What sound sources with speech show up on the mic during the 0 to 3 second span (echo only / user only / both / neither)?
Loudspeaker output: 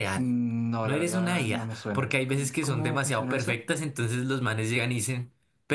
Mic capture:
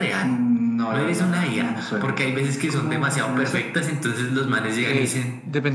echo only